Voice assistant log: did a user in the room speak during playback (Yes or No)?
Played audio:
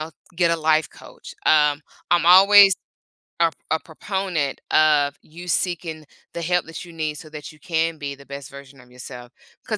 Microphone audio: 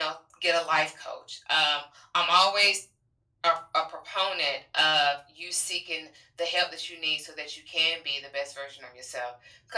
No